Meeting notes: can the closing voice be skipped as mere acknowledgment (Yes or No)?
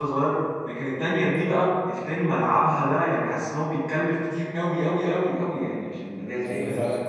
No